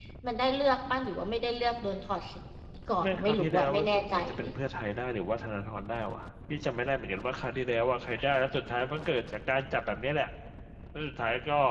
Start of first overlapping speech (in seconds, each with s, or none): 3.0 s